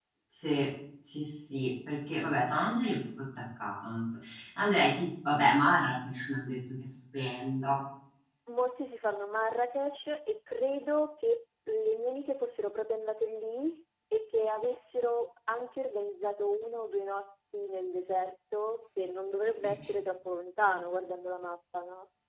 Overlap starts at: none

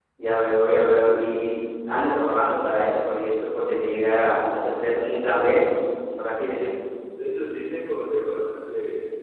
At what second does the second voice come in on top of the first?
none

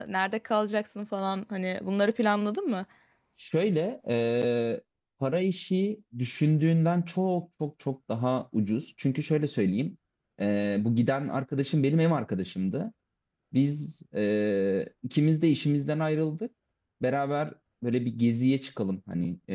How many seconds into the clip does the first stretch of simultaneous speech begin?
none

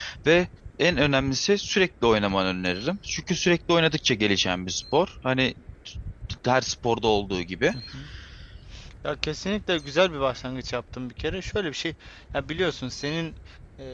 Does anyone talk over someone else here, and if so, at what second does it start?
none

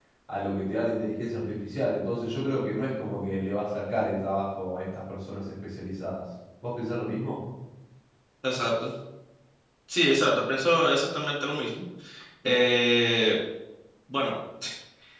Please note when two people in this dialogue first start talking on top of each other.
none

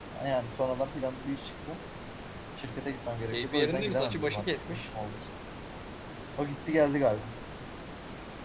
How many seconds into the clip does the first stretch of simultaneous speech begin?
3.3 s

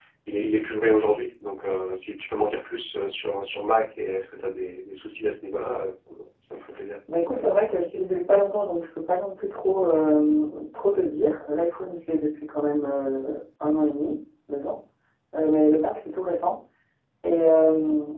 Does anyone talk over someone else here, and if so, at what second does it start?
none

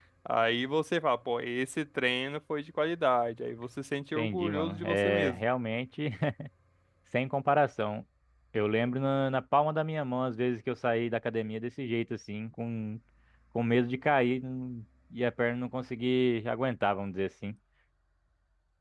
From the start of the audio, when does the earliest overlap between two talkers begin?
4.2 s

